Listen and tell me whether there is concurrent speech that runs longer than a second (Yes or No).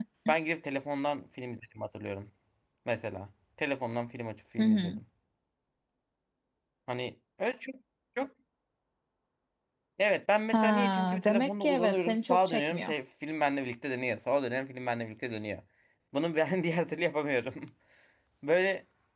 Yes